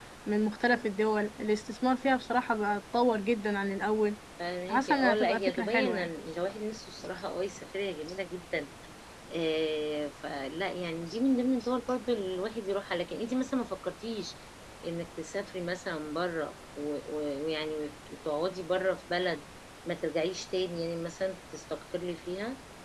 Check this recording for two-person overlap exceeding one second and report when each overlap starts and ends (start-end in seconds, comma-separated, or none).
4.7-6.1